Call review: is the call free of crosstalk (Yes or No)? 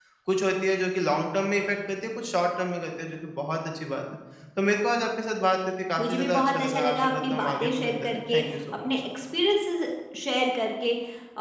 No